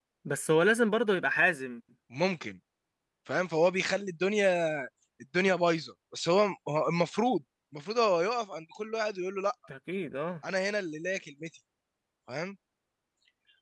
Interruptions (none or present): none